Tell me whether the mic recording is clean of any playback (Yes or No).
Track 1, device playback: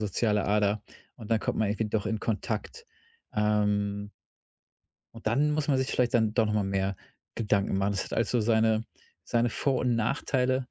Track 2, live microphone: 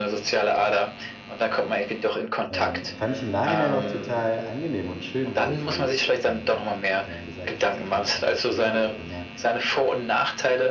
No